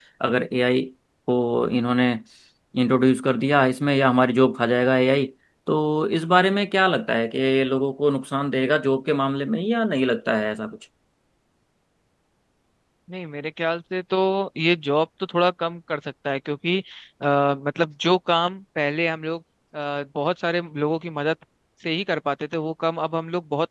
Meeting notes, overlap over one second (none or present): none